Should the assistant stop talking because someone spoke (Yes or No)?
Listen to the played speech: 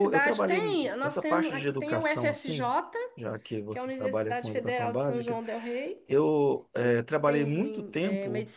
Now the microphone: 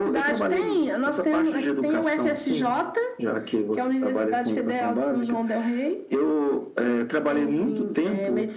No